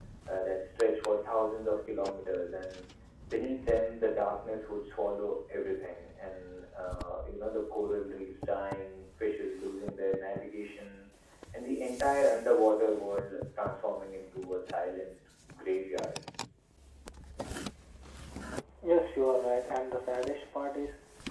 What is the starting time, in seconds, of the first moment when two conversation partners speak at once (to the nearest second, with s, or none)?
none